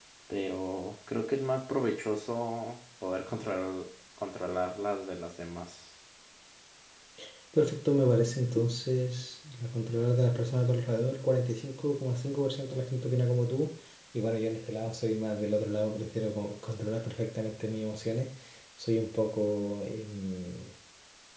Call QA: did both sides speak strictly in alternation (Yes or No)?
Yes